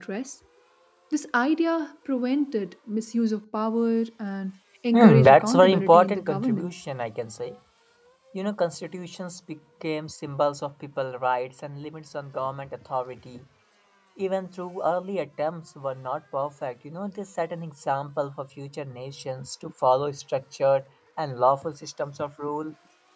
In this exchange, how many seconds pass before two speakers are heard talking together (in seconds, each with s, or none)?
4.9 s